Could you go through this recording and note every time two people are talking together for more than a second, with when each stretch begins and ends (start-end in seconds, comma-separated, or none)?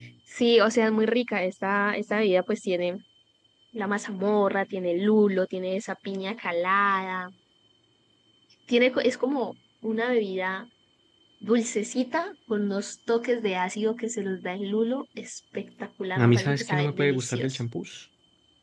16.1-17.6